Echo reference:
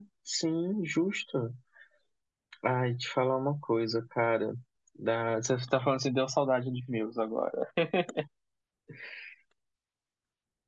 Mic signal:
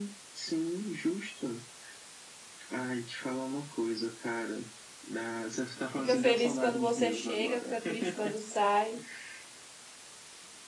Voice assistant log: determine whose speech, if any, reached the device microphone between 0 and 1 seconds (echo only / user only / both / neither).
echo only